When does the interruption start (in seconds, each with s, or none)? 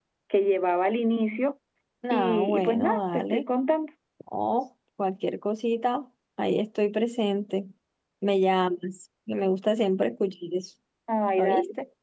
2.1 s